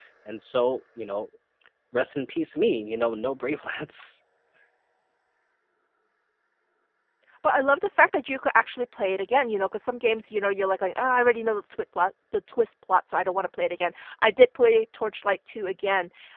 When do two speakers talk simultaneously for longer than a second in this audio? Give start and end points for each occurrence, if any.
none

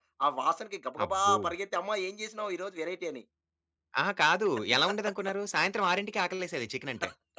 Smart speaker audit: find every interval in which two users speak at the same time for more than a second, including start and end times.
none

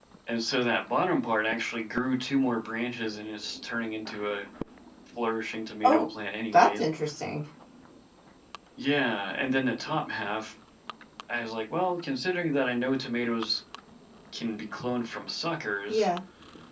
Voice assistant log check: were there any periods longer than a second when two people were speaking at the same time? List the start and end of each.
none

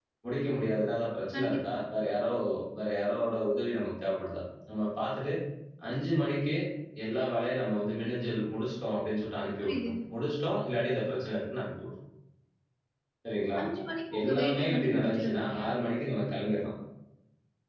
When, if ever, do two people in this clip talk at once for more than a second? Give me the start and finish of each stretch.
14.2-15.7

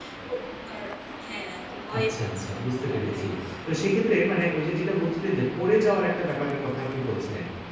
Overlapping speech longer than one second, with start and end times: 2.0-3.2

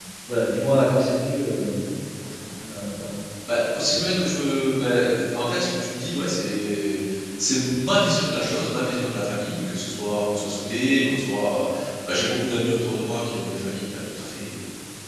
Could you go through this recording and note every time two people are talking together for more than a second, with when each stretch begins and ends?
none

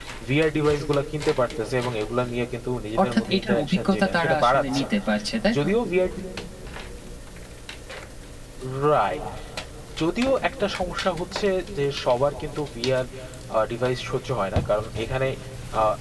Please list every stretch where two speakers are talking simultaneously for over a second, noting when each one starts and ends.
3.0-4.8

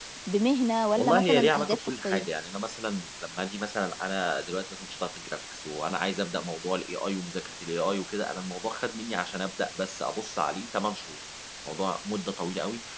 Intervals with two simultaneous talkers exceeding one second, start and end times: 1.0-2.3

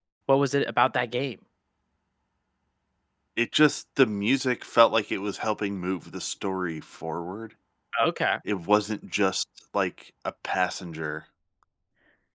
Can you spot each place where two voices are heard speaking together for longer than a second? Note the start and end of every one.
none

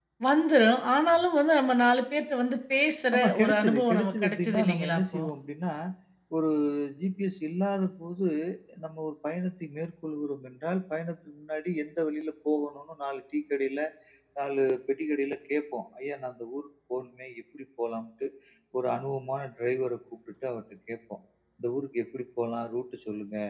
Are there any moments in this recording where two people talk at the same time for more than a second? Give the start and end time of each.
3.1-5.2

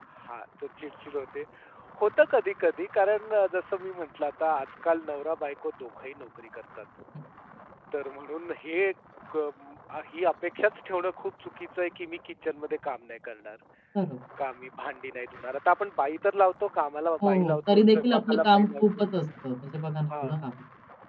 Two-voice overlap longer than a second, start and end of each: 17.2-18.8

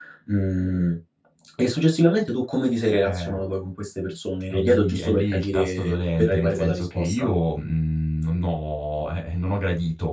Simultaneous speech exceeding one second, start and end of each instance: 4.5-7.3

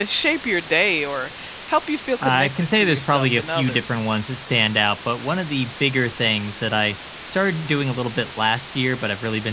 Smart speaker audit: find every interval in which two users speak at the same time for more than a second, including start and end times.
2.2-4.0

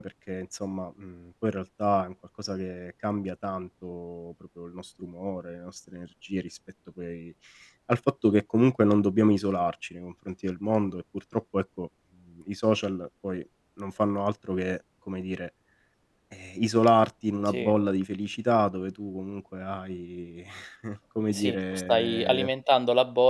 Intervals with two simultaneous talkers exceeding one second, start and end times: 21.3-22.5

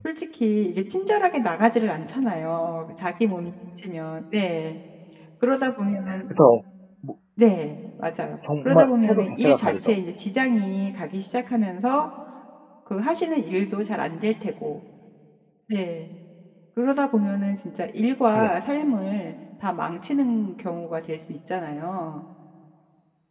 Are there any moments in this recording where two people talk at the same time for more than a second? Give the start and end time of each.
8.7-9.9

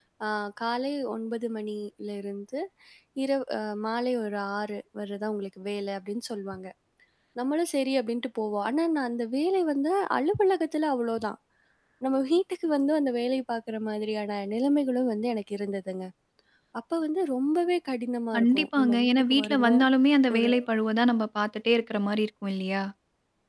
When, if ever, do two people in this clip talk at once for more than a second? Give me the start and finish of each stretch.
18.4-19.8

